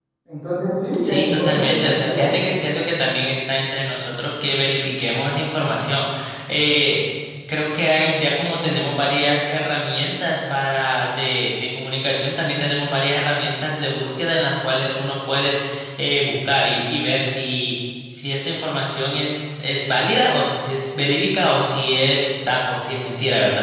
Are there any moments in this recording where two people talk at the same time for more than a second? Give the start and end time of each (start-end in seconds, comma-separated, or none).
1.0-2.4